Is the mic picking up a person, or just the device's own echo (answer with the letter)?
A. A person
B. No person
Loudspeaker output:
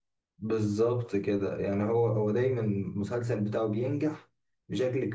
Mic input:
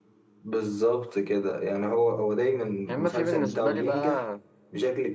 A